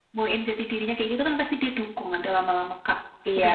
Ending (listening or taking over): taking over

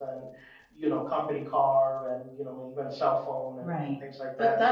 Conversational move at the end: taking over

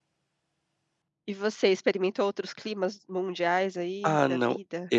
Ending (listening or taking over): taking over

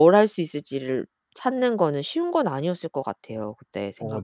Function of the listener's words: listening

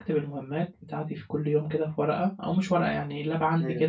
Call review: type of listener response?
listening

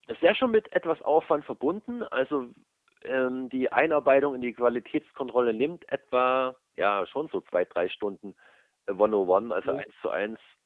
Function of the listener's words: listening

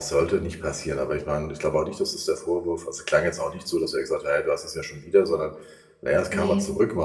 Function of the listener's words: listening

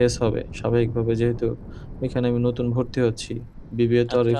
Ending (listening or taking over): listening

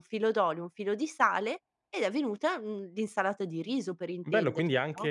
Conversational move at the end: taking over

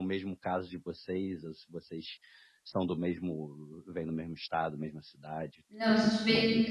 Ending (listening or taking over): taking over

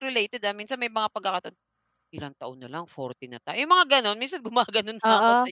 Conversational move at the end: taking over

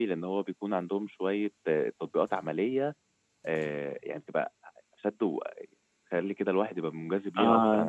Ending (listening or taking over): taking over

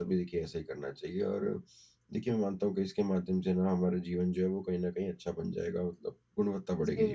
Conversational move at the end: taking over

